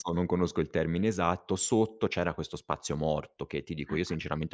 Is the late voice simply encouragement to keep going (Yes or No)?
Yes